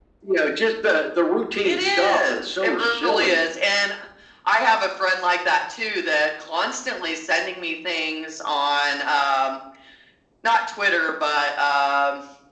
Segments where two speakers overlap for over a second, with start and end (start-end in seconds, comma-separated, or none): 1.6-3.4